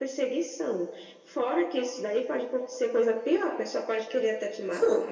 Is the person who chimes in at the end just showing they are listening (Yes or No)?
No